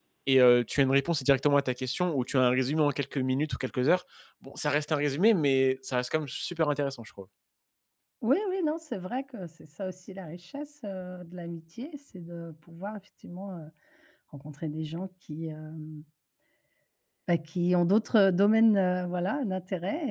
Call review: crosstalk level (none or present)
none